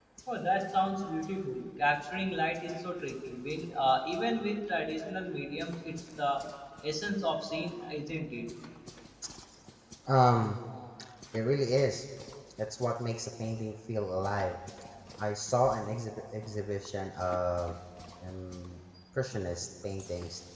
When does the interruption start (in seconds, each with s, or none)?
none